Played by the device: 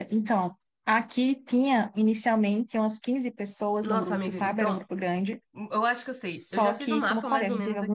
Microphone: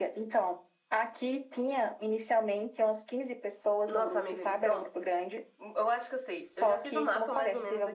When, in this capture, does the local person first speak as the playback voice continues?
none

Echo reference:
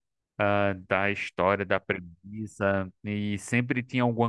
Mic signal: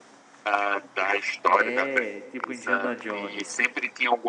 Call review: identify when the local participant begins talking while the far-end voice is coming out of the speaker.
1.4 s

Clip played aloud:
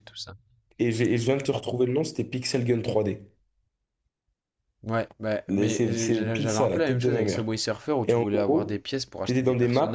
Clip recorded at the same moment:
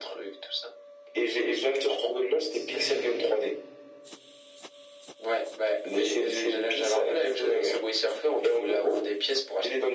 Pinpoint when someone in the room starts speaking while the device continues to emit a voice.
2.5 s

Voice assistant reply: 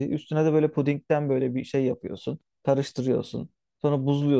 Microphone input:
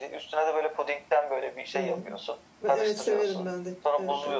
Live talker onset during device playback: 1.7 s

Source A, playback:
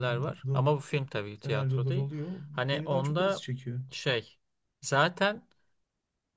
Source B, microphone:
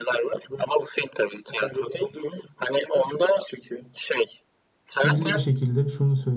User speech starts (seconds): 4.9 s

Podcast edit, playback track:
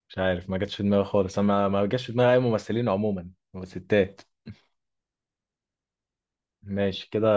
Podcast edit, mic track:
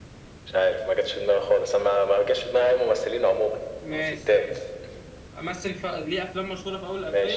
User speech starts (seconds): 3.8 s

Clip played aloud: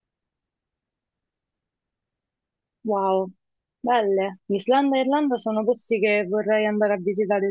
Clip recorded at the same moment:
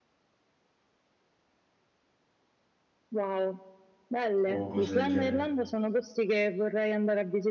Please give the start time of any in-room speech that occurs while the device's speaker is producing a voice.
4.4 s

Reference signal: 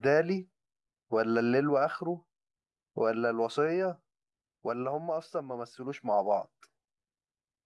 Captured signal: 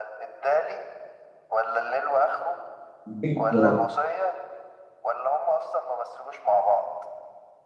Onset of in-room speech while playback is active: 3.1 s

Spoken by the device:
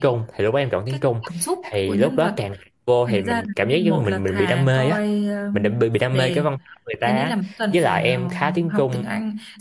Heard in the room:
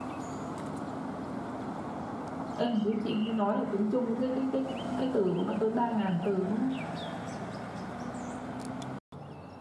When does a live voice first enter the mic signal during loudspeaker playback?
2.6 s

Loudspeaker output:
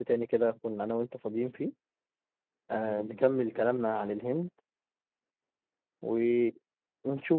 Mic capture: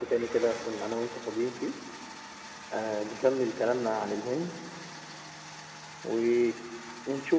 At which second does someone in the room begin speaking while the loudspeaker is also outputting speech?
none

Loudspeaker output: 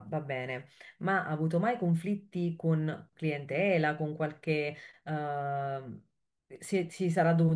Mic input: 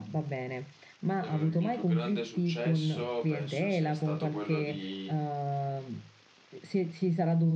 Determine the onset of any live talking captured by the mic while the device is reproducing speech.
1.2 s

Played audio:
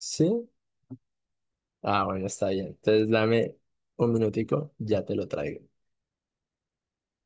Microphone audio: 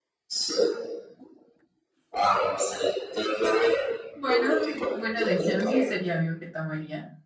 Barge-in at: 4.1 s

